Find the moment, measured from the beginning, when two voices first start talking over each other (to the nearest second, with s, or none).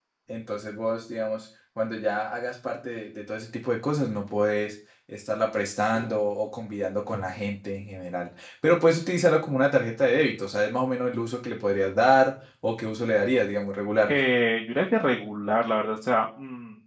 none